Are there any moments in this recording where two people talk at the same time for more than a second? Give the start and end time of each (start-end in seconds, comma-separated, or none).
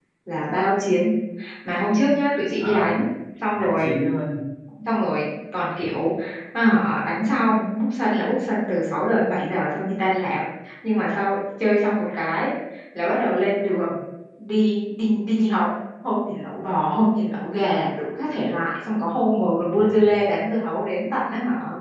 none